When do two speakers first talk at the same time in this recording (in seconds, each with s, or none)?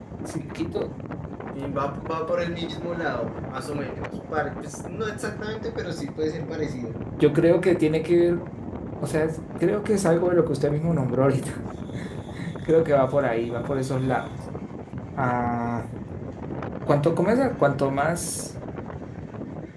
none